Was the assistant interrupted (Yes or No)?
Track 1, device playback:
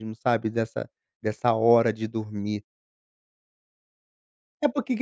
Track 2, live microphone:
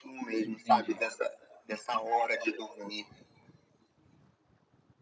Yes